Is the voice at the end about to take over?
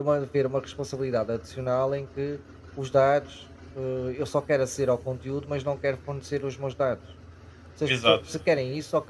No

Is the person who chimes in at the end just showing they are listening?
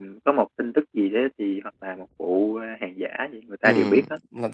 No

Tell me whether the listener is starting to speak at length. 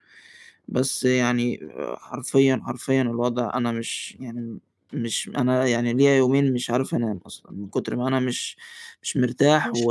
No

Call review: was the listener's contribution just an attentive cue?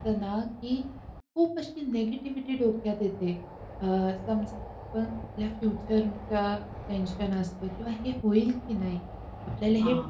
Yes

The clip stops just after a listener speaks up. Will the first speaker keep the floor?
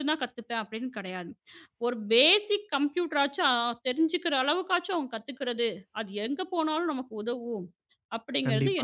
No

